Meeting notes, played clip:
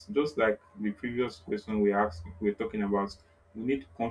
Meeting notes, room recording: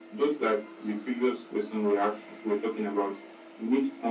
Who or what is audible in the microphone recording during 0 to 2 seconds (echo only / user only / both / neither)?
echo only